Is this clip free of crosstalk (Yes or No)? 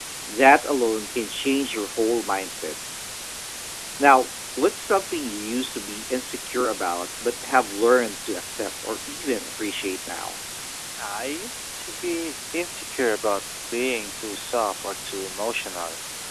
Yes